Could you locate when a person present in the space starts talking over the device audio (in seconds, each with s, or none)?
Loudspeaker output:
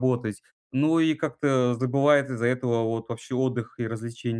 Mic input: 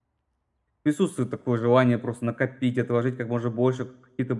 0.8 s